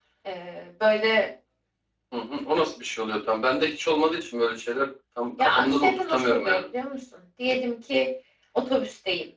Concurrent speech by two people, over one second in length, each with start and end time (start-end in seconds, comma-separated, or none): 5.4-6.6